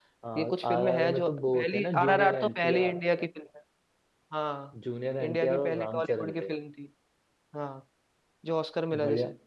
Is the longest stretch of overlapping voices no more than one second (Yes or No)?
No